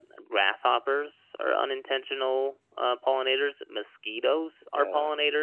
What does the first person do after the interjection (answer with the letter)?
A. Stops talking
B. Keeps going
B